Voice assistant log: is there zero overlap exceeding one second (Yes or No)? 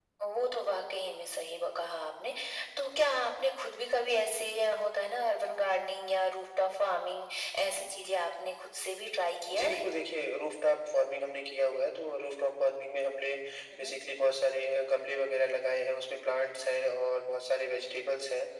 Yes